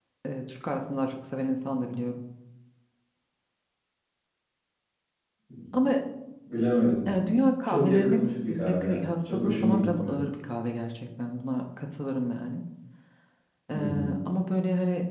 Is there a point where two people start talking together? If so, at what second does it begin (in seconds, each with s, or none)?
7.7 s